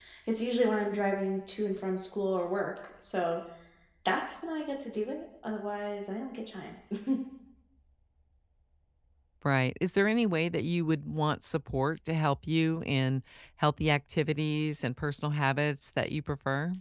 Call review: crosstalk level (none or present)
none